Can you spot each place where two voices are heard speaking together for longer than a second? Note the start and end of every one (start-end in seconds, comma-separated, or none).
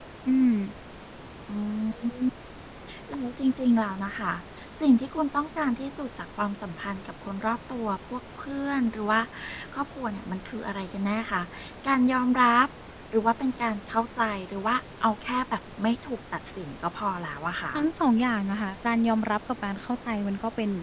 none